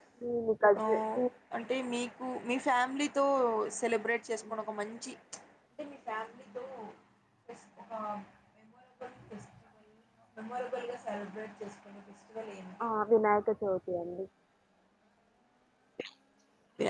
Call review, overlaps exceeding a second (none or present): none